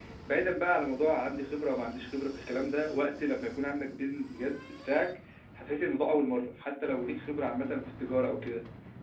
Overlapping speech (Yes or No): No